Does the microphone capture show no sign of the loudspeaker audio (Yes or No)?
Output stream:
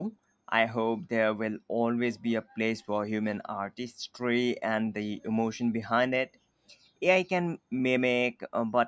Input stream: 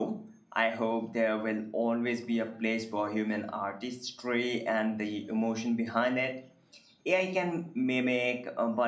No